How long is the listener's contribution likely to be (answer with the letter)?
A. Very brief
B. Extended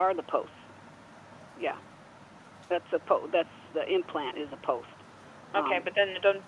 B